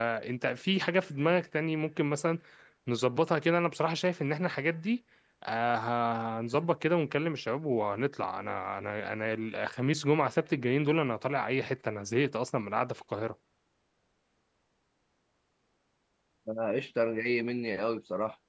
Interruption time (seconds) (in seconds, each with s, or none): none